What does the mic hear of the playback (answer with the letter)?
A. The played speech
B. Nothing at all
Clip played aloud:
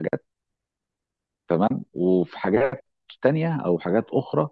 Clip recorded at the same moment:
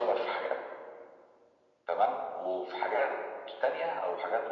A